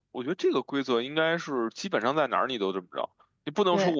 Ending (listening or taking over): listening